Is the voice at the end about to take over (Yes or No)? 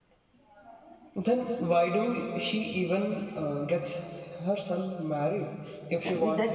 Yes